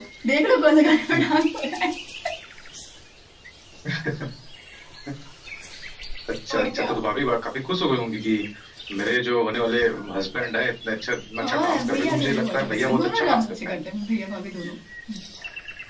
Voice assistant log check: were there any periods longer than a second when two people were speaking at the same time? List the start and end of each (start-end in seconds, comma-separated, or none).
11.4-13.7